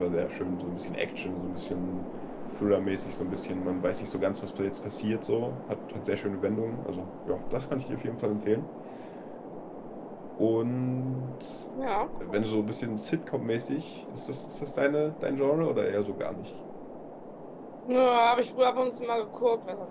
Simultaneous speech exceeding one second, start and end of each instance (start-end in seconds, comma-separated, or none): none